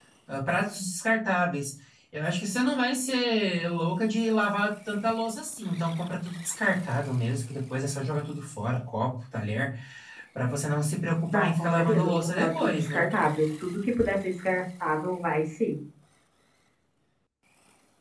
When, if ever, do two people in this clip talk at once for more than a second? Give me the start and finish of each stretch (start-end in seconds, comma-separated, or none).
11.3-13.1